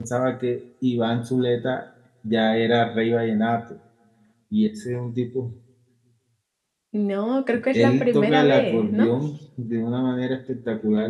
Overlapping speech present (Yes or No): Yes